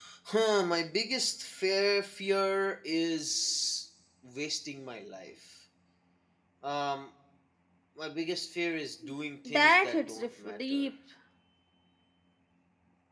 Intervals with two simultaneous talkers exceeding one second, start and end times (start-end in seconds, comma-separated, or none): 9.4-10.9